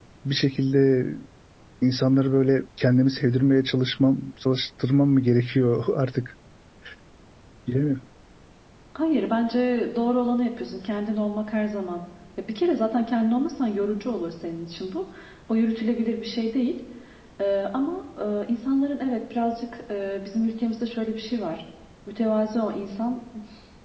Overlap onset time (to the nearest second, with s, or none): none